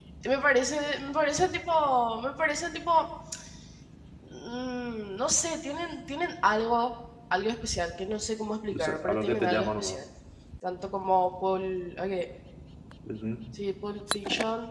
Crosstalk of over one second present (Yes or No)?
Yes